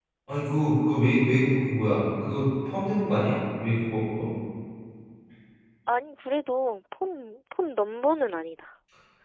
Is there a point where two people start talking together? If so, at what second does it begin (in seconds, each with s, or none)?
none